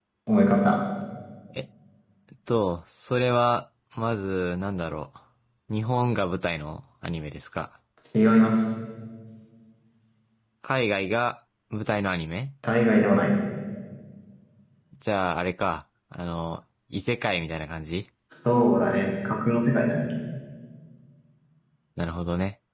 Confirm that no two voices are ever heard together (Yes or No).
Yes